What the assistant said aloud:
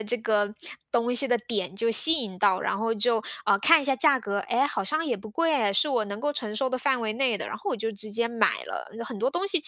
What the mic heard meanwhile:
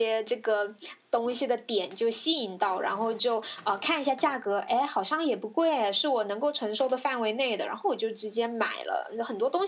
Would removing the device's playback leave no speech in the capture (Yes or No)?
Yes